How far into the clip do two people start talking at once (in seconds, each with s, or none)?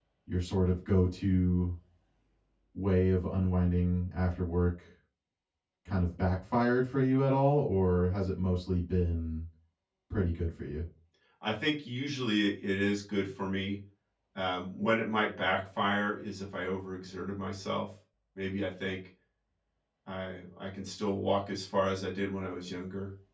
none